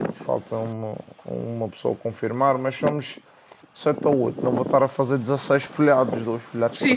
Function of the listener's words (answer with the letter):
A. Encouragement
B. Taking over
B